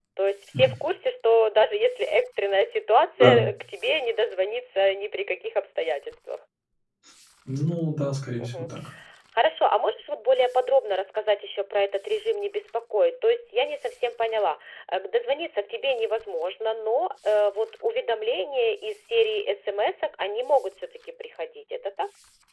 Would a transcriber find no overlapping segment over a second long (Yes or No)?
Yes